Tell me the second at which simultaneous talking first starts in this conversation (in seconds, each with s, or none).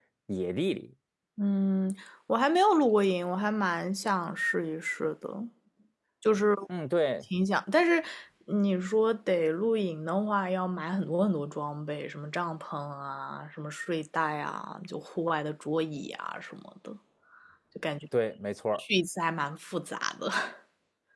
none